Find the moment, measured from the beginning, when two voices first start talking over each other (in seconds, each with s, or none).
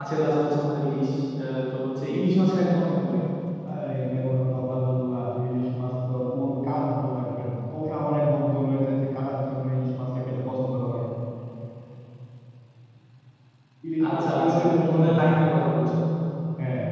14.1 s